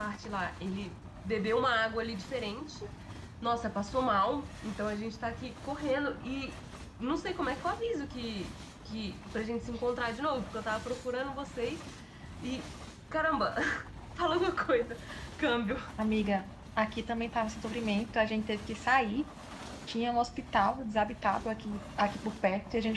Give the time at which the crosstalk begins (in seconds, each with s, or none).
none